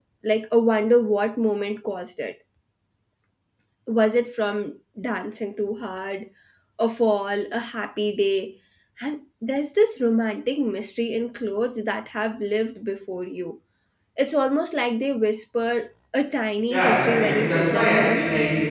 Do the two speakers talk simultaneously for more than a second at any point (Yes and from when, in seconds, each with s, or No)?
Yes, from 16.7 s